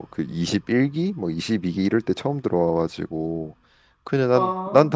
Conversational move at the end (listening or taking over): listening